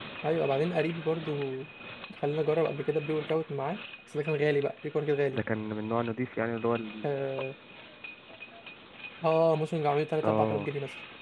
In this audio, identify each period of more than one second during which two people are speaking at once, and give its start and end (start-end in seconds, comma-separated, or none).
none